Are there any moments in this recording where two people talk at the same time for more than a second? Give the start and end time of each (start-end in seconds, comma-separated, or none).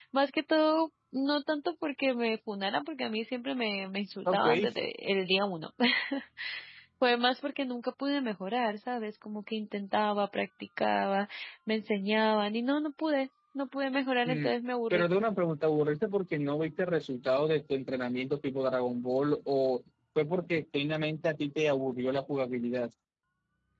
none